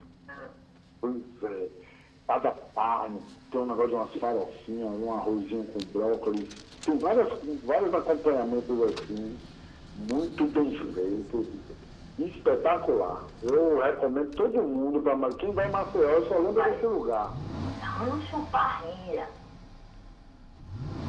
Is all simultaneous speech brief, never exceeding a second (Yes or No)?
Yes